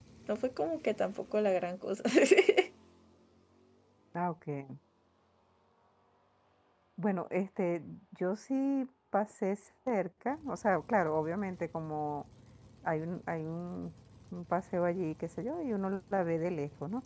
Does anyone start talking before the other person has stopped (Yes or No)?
No